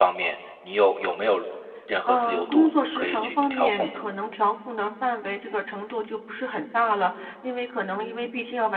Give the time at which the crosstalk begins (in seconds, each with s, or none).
2.1 s